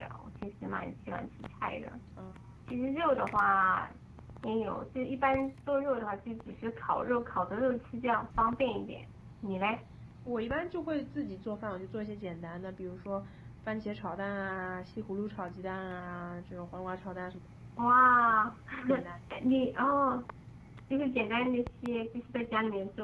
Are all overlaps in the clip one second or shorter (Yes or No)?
Yes